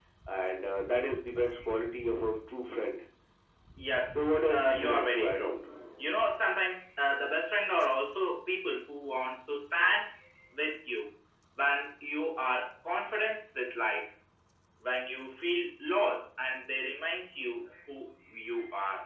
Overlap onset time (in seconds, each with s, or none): 4.2 s